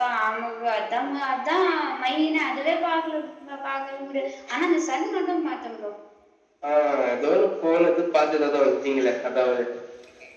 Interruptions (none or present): none